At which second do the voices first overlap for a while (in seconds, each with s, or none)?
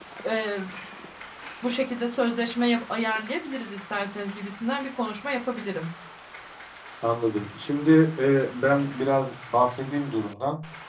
none